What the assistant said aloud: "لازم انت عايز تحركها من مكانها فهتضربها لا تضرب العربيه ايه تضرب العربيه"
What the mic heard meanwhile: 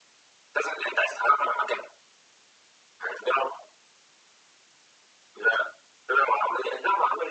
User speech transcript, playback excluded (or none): none